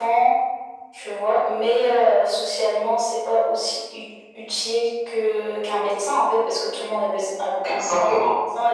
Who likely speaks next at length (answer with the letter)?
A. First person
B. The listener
A